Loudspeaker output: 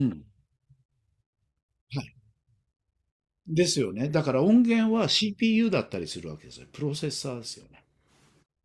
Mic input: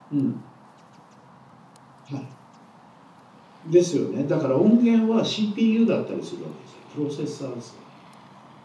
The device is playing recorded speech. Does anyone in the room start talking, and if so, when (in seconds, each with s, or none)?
none